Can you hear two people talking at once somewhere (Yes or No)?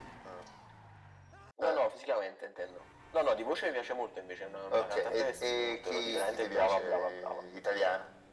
Yes